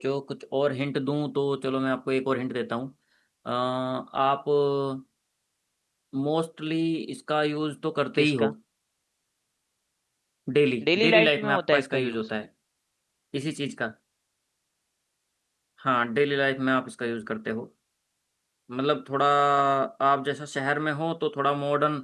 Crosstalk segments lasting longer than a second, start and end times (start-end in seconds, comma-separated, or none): 10.8-12.2